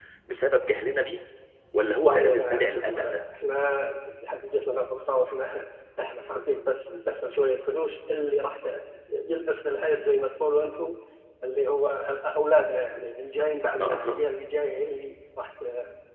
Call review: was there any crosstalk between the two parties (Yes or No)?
Yes